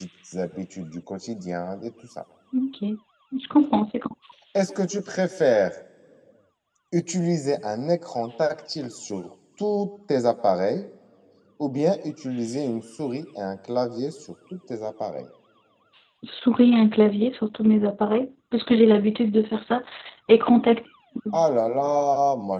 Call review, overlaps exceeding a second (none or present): none